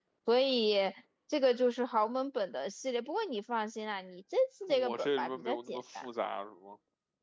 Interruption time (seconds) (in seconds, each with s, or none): 4.7 s